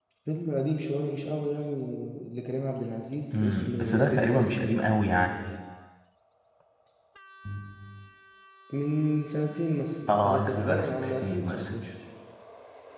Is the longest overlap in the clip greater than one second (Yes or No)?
Yes